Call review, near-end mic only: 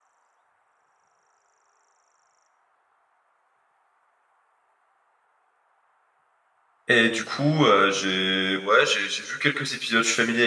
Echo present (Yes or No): No